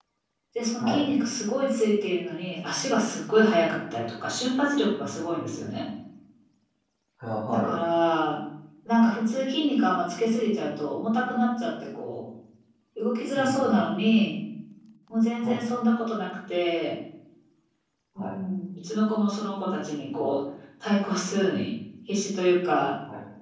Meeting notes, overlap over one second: none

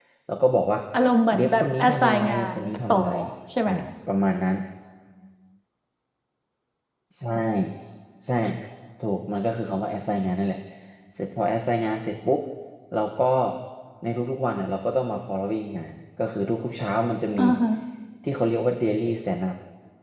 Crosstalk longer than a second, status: present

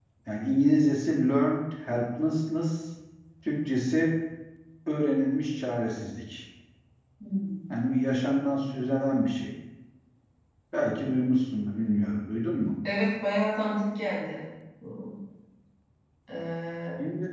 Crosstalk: none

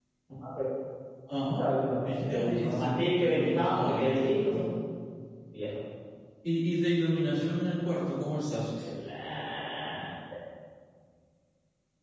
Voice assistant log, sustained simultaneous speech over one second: present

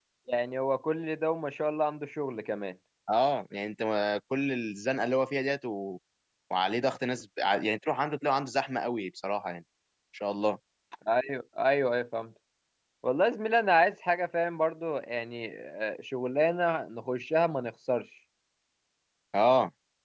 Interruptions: none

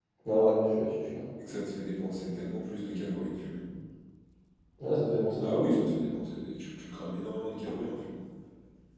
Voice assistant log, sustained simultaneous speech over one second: none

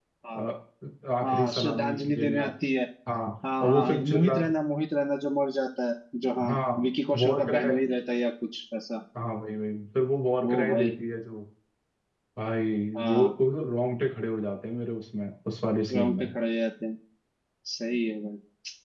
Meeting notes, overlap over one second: present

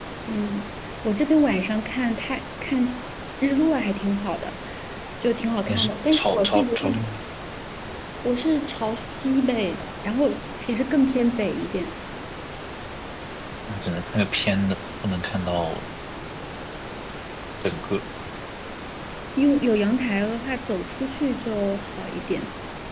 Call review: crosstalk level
present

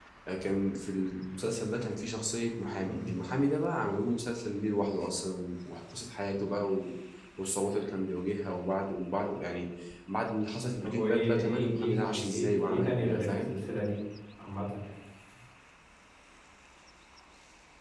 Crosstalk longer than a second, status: present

